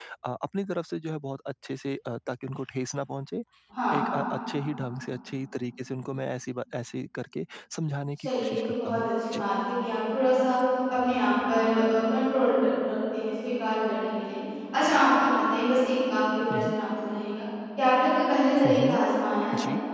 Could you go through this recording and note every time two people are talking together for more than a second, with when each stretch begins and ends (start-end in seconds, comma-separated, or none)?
8.2-9.4